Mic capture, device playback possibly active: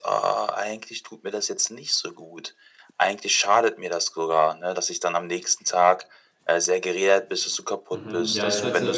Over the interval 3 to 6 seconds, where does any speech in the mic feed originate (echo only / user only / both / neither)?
echo only